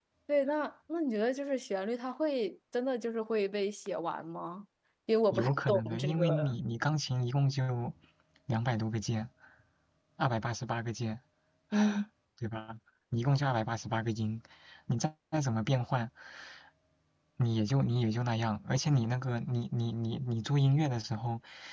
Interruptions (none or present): present